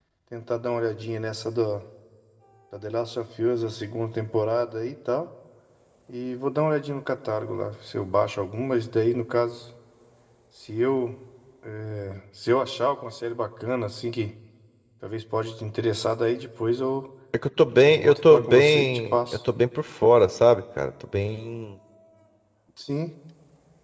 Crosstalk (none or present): present